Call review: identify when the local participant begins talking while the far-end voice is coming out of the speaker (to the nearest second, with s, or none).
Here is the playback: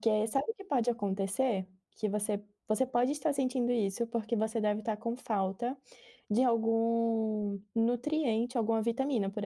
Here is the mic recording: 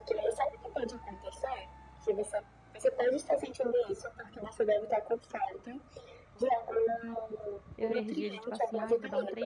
8 s